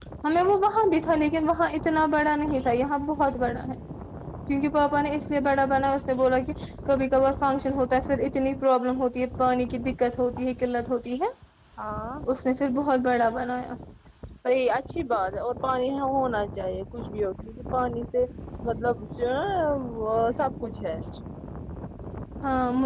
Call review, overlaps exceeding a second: none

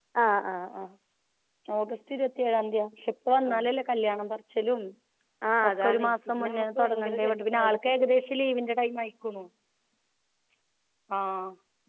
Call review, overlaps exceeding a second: present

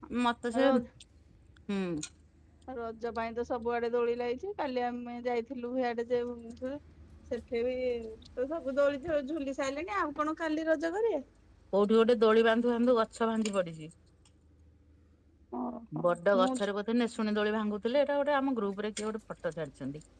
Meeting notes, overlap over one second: none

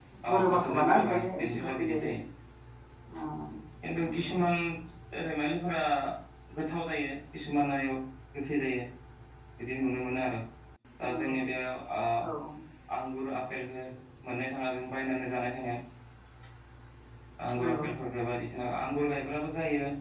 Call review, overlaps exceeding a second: present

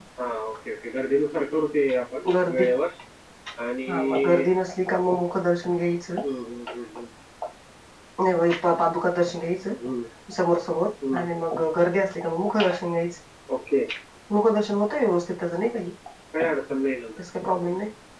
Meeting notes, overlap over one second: none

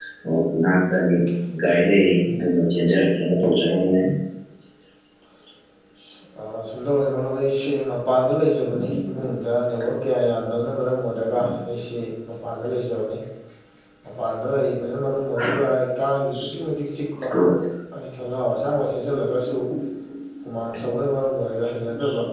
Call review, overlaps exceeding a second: none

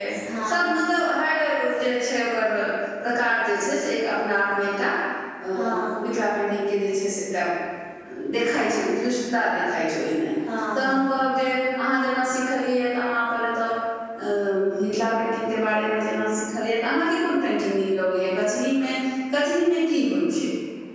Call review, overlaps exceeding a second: none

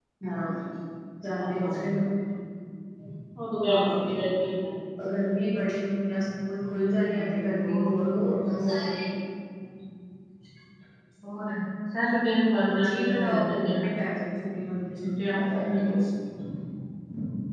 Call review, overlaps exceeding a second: present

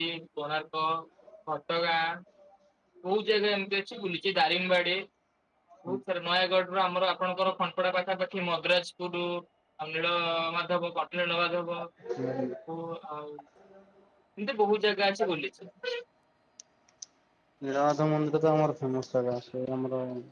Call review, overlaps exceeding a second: none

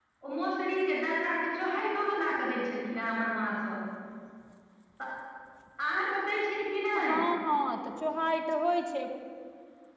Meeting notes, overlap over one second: none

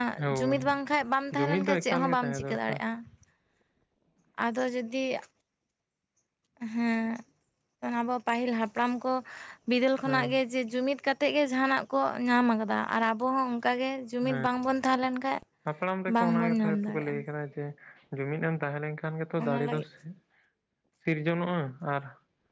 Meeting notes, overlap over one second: present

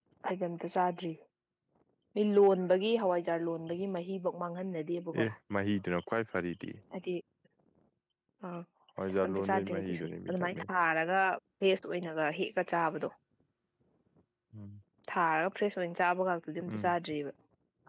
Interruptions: present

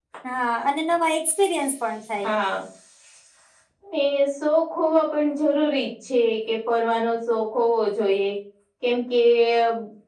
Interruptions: none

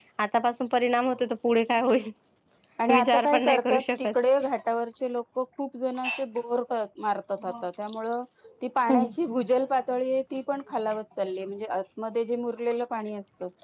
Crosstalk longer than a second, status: present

